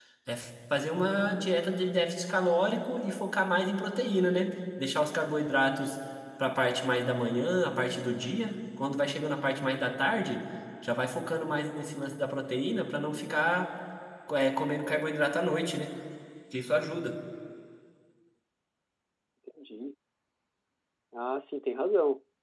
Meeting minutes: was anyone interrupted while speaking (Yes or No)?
No